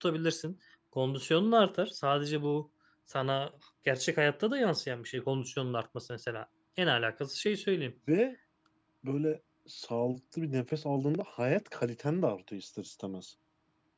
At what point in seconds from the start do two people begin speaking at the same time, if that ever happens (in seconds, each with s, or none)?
none